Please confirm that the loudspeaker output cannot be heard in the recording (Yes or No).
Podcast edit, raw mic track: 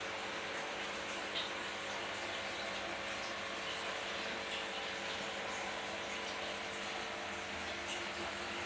Yes